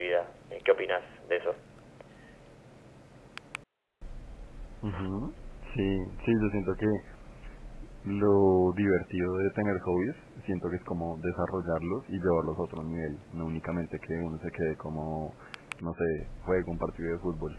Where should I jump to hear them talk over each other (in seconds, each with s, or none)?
none